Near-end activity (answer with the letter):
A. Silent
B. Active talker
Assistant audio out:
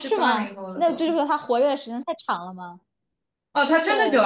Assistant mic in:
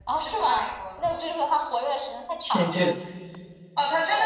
B